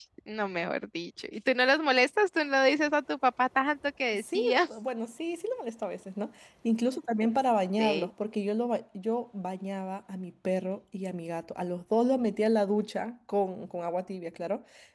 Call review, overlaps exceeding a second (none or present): none